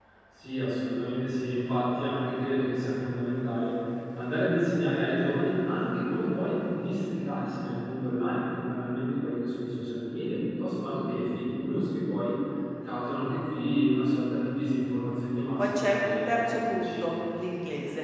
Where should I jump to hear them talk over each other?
15.6 s

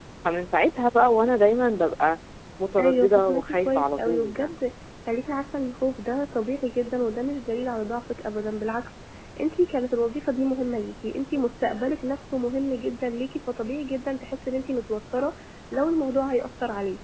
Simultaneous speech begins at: 2.8 s

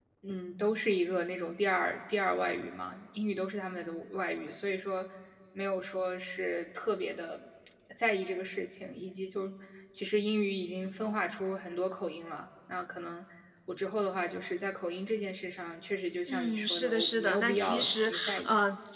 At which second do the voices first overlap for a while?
16.3 s

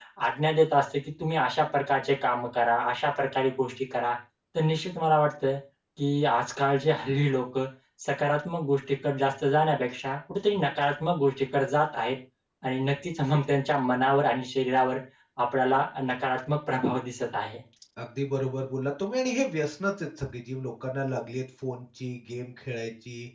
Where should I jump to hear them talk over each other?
none

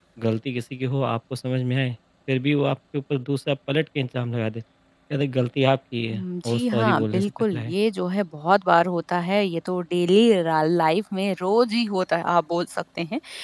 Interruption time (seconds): 6.1 s

